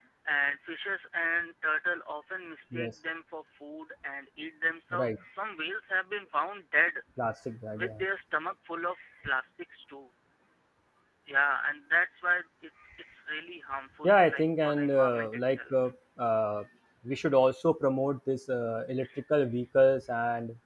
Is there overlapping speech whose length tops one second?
Yes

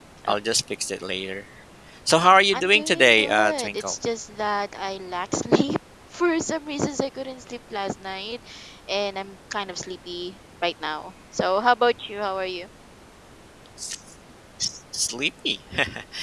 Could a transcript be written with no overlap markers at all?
No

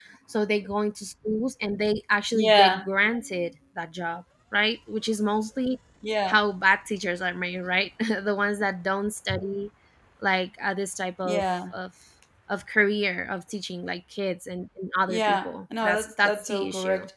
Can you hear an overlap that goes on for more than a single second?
Yes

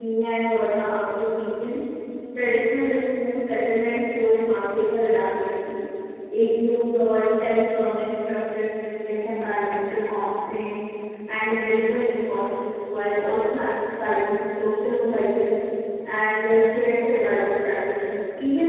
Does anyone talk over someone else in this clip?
No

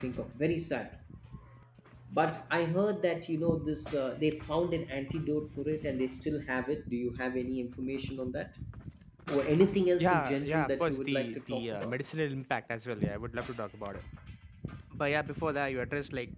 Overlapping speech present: Yes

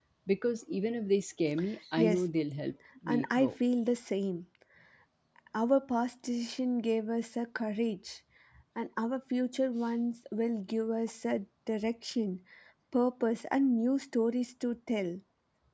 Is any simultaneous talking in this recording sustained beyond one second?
No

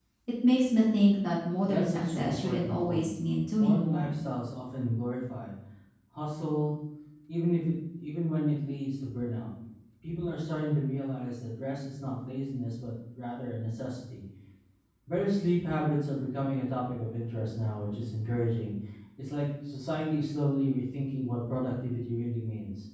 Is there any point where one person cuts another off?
Yes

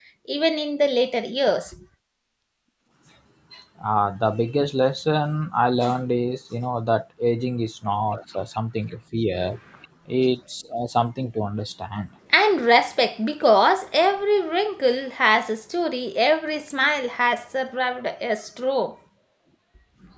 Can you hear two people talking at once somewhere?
No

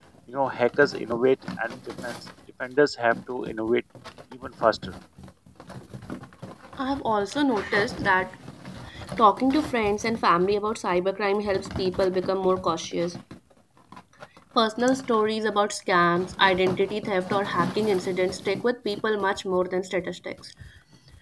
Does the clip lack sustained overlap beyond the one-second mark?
Yes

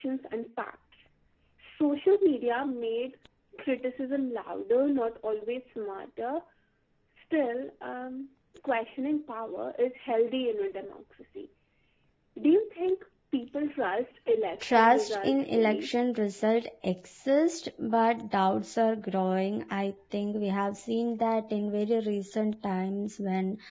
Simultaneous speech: Yes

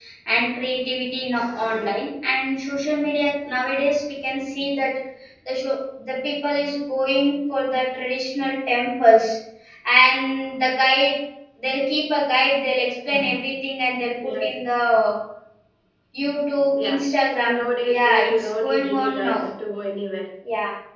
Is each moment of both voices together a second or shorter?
No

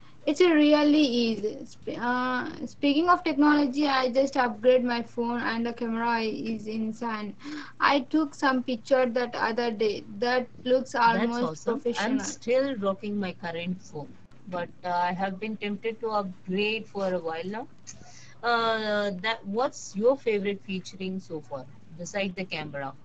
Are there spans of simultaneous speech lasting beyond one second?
Yes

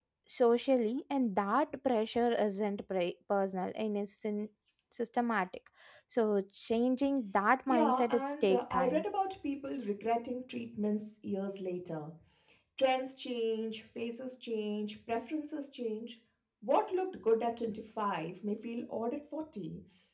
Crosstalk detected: Yes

